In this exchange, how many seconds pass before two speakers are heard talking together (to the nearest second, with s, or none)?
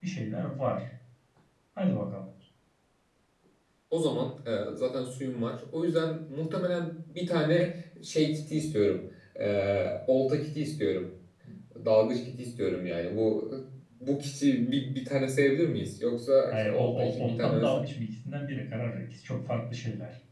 17 s